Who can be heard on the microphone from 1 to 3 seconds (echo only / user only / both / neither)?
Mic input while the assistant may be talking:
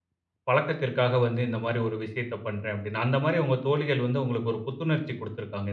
user only